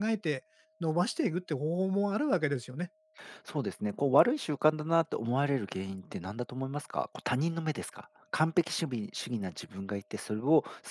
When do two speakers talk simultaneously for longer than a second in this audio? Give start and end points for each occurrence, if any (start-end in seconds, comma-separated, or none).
none